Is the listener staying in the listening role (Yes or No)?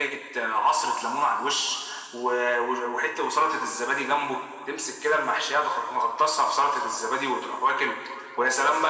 Yes